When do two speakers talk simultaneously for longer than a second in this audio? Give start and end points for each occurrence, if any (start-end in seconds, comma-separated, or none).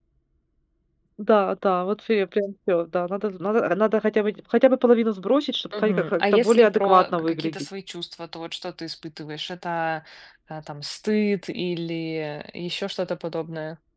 5.8-7.6